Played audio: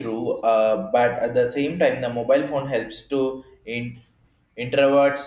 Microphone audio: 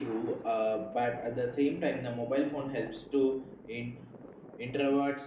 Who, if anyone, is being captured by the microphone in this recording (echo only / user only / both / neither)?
echo only